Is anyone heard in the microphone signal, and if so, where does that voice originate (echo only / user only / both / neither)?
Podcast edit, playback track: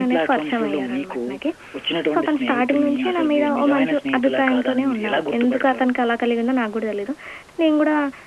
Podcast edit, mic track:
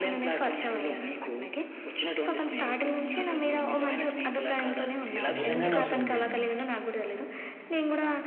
both